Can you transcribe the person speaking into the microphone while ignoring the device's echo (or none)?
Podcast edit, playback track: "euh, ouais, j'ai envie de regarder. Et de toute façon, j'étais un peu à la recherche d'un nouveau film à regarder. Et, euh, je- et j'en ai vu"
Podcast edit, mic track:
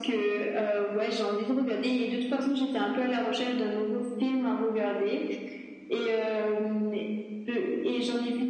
none